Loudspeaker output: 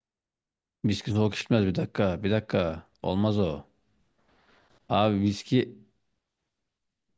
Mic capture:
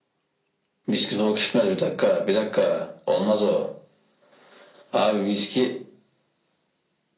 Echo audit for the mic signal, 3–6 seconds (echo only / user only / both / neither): echo only